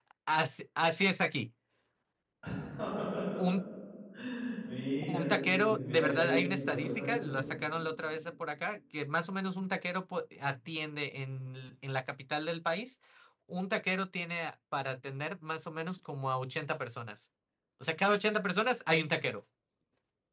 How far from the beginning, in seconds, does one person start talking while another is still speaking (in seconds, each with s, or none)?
5.0 s